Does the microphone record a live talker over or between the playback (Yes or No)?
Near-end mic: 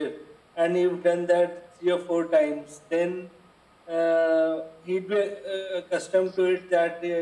No